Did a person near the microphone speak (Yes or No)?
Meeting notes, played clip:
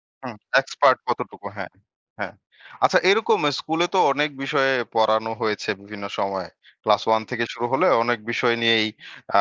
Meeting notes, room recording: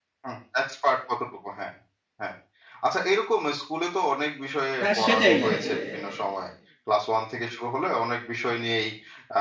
Yes